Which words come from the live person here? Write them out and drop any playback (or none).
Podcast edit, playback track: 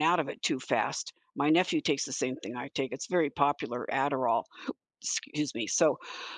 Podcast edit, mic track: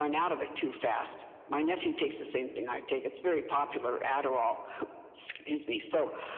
none